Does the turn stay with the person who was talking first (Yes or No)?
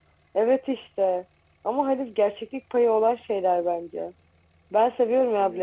Yes